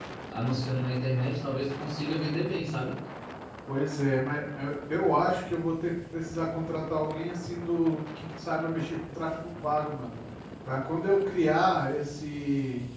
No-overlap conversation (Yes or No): Yes